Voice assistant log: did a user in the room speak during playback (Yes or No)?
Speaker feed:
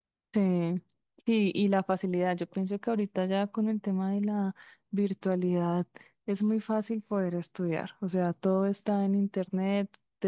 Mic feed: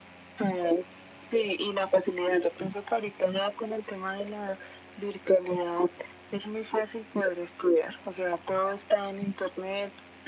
No